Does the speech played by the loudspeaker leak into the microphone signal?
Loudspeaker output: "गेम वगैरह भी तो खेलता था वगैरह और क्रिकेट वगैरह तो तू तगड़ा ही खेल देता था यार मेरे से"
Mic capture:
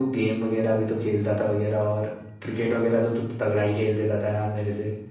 Yes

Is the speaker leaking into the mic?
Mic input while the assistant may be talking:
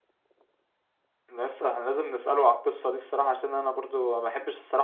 No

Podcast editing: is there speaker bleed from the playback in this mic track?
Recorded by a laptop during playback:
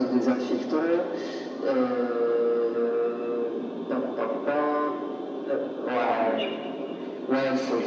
Yes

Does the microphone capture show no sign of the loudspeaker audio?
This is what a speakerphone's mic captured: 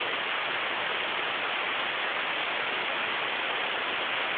Yes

